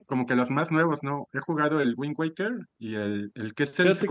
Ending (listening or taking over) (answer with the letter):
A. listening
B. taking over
A